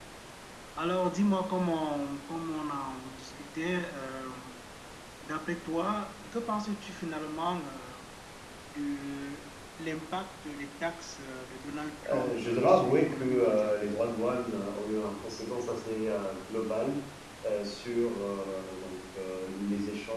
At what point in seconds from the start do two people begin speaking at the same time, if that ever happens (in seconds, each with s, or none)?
12.0 s